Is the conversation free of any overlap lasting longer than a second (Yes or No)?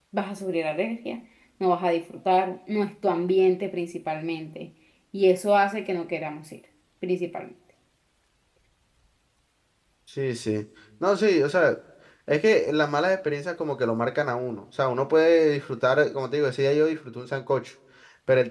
Yes